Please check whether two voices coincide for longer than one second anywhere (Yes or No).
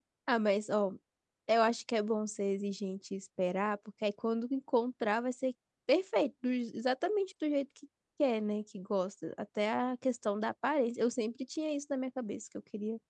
No